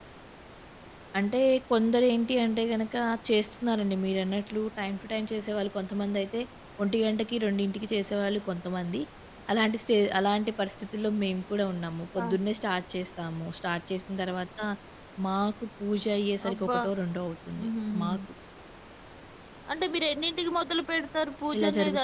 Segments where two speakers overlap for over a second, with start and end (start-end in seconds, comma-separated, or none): none